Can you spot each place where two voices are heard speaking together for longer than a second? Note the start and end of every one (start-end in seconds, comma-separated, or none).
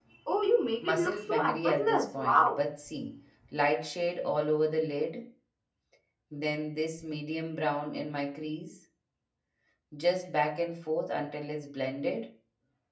0.8-2.6